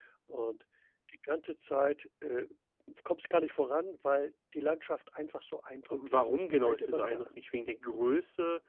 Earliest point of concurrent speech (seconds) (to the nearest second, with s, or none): 6 s